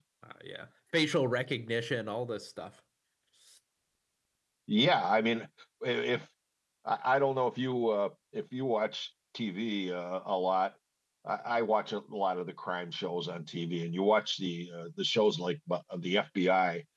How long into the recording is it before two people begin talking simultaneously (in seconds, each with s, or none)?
none